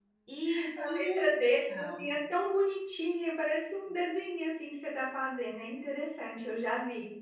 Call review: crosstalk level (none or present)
present